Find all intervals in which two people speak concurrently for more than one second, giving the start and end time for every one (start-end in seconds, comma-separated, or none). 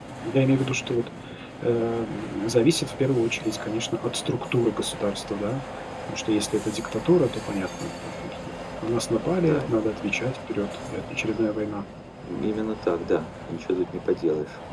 none